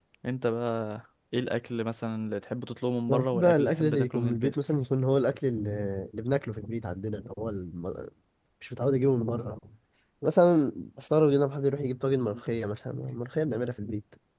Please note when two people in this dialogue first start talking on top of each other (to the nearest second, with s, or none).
3 s